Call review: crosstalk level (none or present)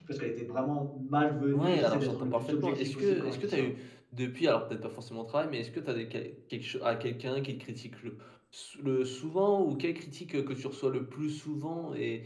present